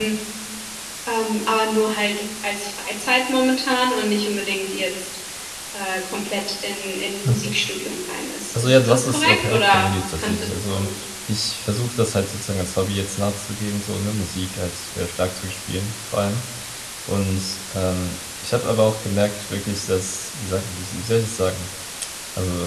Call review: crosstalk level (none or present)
present